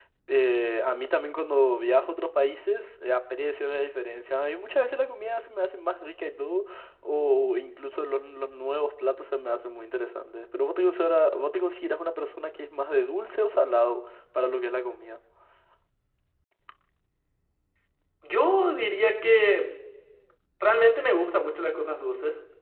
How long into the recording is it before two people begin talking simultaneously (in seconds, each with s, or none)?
none